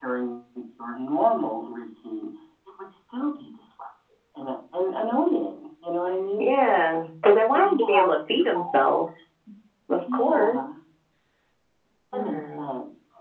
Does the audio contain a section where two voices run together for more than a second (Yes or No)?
Yes